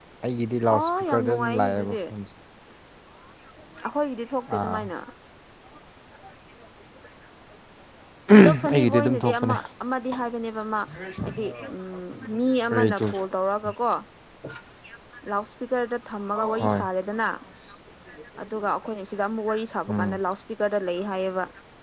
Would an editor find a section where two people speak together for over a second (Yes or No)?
Yes